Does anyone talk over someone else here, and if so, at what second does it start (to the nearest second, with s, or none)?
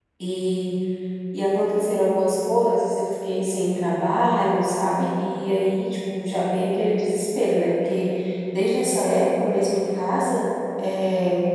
none